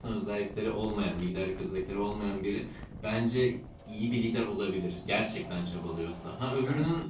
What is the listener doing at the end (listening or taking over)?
listening